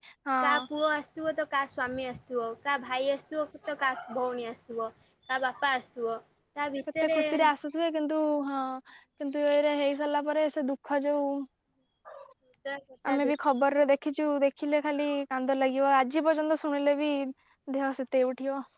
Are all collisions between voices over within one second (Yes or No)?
Yes